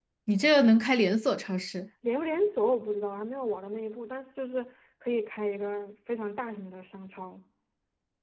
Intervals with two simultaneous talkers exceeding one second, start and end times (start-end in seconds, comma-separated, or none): none